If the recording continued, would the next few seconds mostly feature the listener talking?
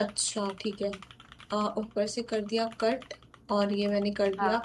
No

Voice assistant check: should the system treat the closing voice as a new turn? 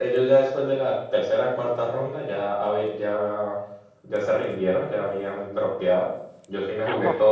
No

